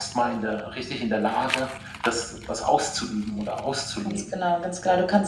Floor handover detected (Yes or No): Yes